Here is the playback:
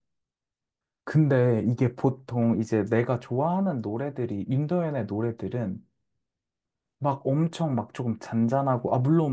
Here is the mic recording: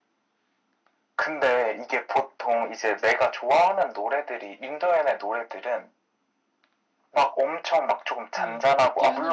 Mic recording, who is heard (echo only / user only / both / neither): both